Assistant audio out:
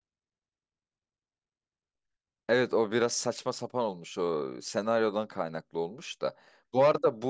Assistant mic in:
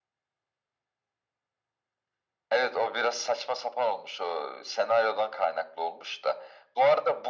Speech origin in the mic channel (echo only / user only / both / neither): echo only